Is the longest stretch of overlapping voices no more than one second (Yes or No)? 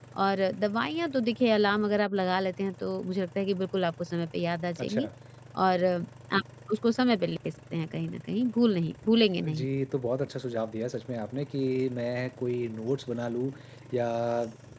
Yes